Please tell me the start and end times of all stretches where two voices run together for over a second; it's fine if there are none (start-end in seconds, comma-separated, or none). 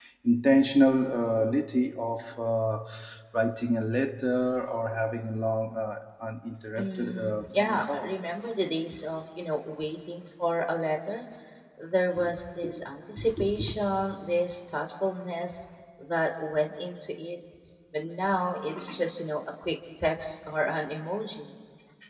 6.8-8.1